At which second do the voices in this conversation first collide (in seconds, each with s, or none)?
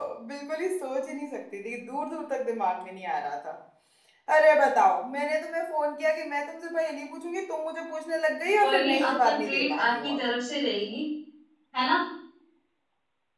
8.6 s